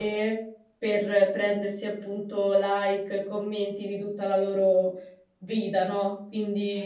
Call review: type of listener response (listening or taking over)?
listening